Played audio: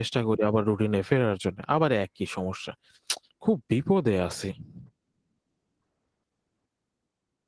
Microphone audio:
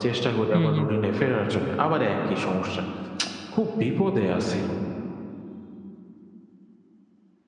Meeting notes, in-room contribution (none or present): present